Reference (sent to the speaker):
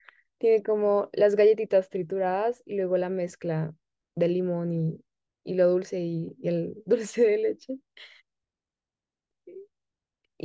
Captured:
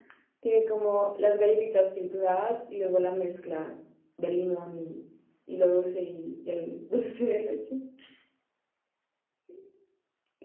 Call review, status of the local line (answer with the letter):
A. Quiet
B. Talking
A